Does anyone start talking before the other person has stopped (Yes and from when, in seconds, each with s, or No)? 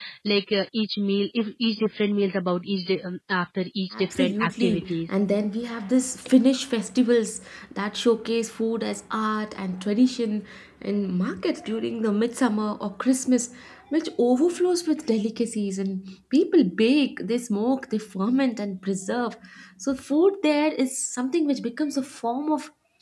Yes, from 3.9 s